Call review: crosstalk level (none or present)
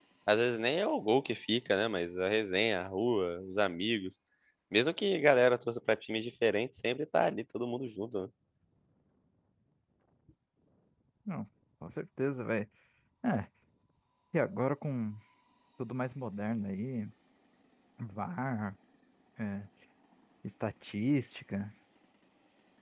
none